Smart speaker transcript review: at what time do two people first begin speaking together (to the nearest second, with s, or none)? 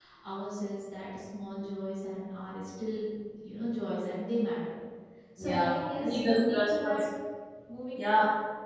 5 s